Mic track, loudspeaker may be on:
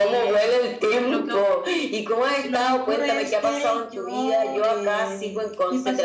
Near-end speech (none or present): present